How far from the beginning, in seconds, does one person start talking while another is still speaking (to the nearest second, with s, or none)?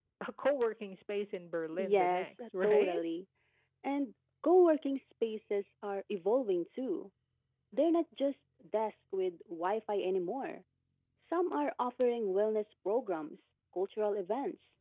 2 s